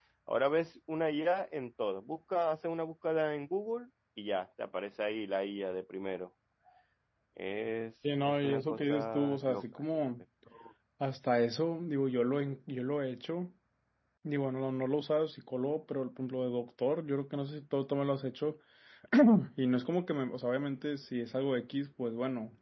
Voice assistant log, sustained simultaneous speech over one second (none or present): present